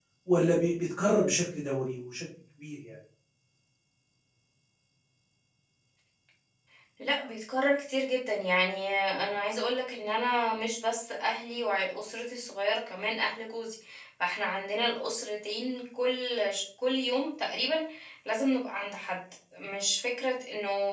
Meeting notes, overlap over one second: none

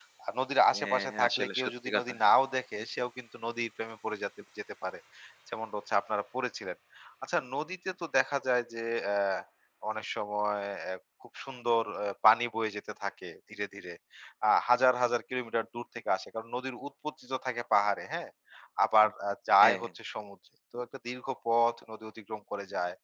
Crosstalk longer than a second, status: present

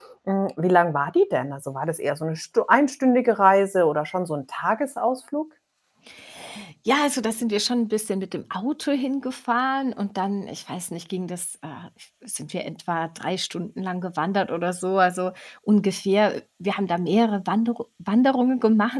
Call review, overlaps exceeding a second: none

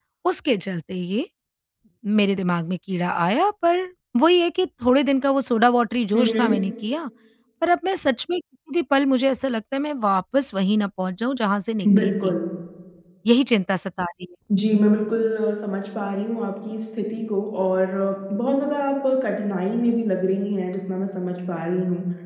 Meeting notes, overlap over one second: none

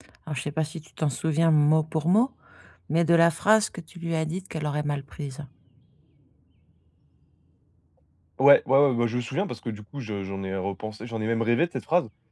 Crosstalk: none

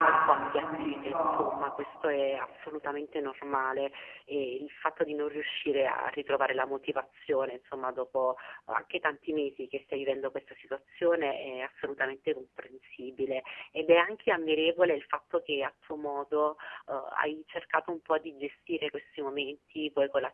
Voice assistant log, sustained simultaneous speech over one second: present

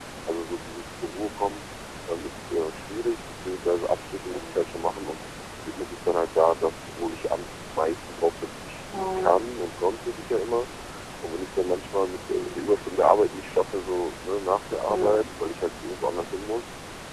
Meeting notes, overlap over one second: none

